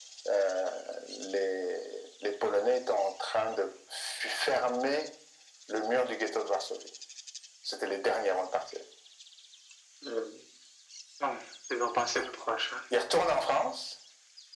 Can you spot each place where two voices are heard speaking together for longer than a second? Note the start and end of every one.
none

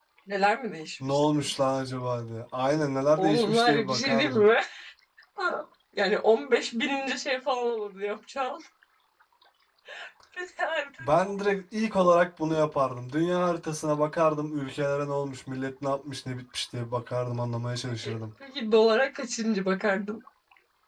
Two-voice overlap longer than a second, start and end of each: 3.2-4.4

